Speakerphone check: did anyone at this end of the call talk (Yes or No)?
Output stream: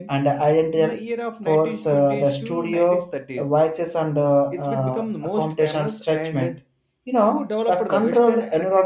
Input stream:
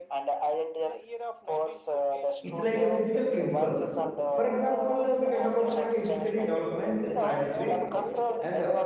Yes